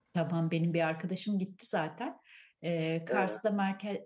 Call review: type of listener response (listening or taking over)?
listening